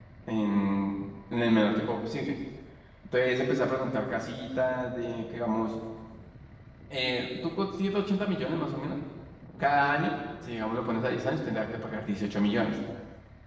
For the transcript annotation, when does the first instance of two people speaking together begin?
none

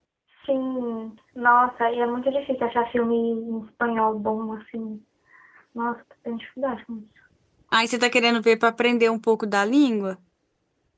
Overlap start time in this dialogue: none

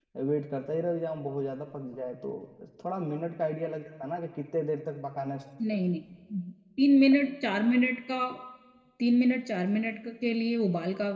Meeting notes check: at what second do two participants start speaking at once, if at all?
none

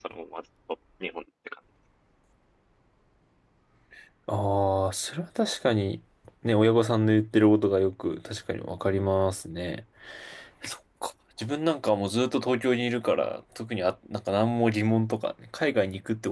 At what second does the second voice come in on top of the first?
none

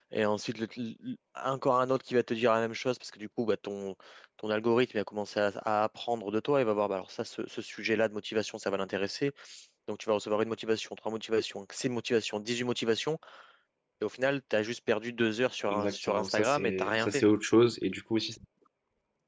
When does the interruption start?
16 s

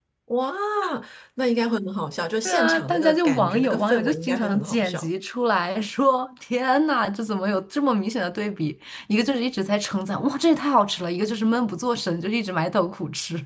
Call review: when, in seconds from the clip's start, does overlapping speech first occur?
2 s

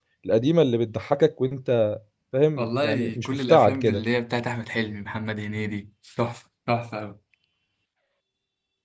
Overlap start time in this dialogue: 3 s

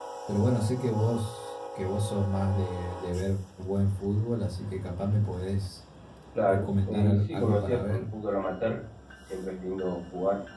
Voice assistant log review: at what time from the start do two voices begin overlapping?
6 s

